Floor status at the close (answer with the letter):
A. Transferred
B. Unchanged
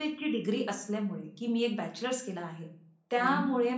B